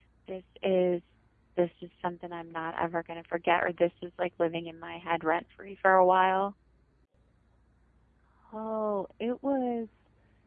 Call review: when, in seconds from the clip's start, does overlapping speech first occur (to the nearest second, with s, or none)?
none